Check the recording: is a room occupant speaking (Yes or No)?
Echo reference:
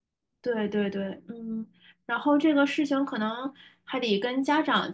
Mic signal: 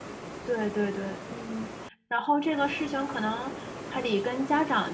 No